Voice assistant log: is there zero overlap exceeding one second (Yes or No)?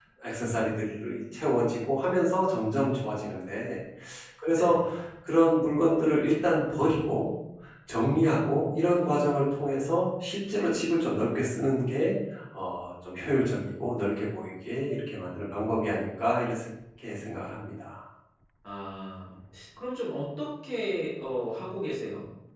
Yes